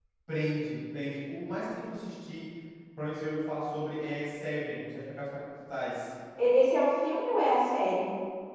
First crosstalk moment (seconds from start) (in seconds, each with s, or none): none